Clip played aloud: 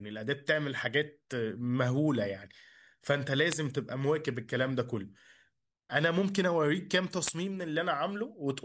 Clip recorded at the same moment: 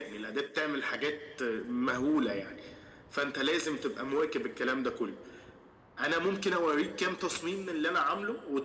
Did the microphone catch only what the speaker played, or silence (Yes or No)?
Yes